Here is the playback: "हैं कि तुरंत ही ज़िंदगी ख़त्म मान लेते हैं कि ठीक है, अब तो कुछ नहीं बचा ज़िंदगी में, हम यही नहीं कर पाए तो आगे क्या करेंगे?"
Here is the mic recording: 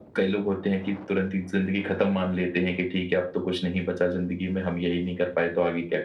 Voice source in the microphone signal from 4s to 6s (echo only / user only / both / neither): echo only